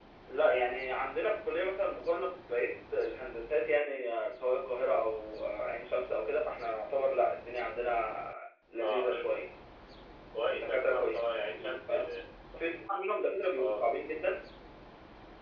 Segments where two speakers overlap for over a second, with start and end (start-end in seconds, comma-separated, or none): 10.5-11.9